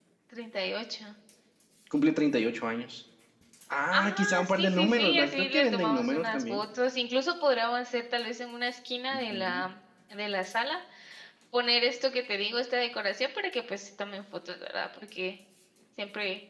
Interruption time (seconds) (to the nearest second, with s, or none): 4 s